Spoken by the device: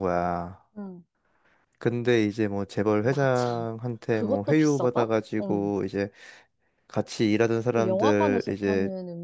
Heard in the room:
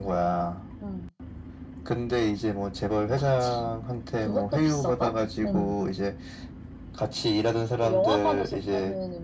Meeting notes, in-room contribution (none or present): none